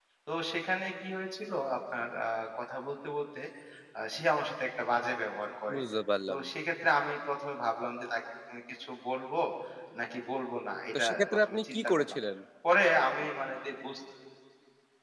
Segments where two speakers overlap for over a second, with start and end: 11.0-12.2

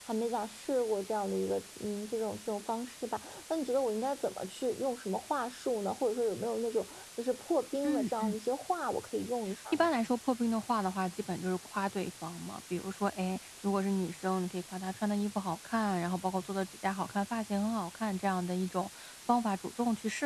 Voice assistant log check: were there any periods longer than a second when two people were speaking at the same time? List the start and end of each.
none

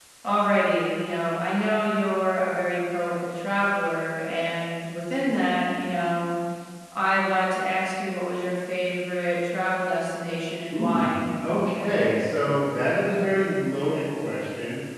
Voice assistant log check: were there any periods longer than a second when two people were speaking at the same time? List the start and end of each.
none

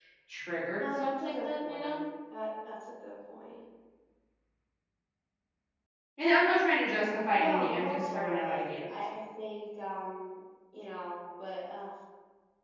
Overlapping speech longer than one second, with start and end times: 0.8-2.0, 7.3-8.9

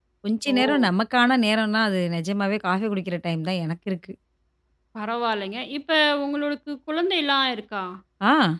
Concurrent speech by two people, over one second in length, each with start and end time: none

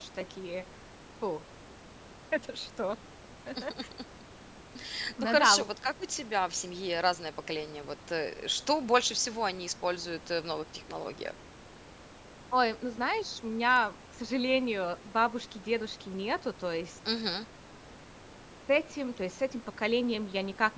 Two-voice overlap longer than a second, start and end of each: none

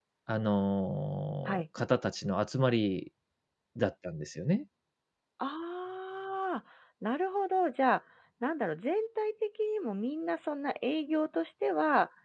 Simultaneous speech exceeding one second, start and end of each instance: none

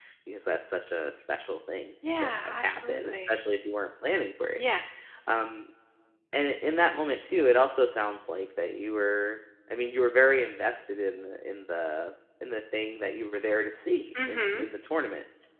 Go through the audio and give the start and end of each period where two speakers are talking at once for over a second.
2.1-3.4

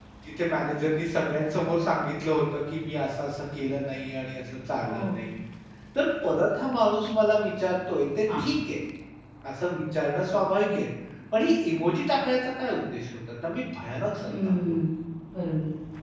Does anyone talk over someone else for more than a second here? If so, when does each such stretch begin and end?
none

